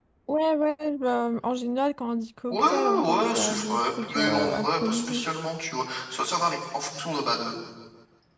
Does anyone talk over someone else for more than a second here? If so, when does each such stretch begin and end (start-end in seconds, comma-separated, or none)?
2.5-5.2